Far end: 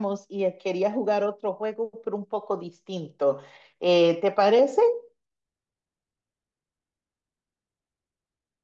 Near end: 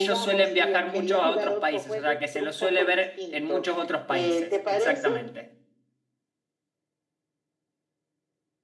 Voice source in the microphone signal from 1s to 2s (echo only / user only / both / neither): both